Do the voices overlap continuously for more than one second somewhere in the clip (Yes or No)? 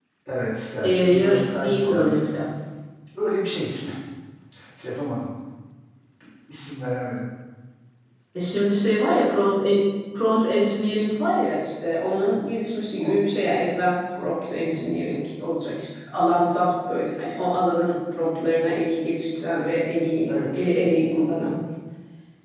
Yes